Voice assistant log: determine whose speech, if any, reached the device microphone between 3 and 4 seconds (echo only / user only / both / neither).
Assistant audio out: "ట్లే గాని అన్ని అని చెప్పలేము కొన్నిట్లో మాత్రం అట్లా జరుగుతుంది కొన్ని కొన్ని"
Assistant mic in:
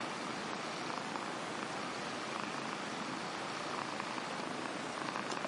neither